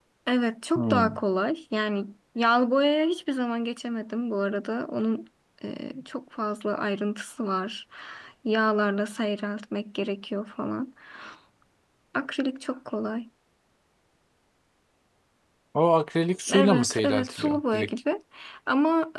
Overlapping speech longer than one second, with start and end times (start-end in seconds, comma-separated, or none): 16.5-17.9